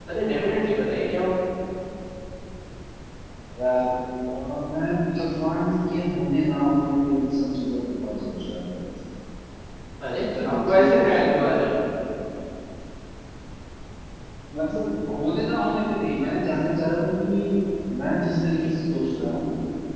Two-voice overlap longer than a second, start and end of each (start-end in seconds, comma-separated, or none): 10.1-11.3